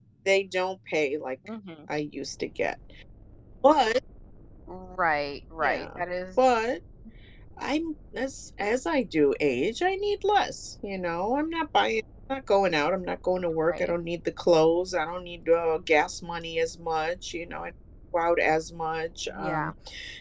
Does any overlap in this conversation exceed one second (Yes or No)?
No